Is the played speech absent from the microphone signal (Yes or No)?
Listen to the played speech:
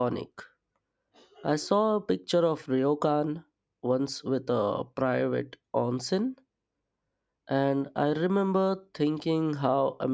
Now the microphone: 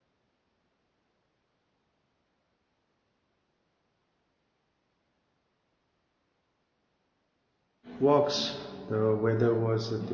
Yes